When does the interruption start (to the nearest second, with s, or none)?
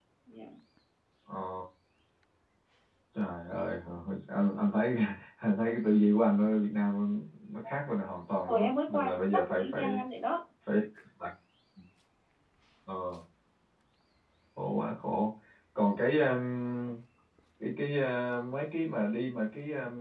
8 s